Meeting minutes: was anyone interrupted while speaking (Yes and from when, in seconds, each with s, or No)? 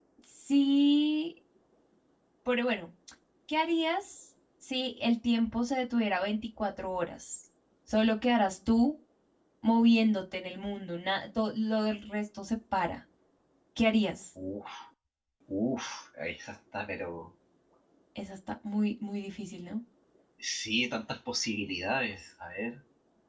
No